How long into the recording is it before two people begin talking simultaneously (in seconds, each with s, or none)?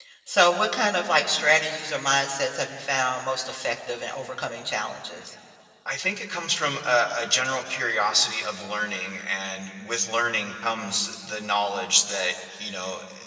none